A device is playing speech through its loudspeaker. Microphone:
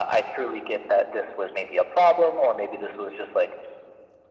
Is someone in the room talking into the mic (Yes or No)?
No